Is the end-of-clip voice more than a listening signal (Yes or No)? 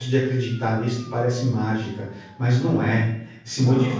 No